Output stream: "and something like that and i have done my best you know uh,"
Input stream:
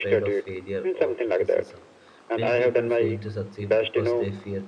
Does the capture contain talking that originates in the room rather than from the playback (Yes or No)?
Yes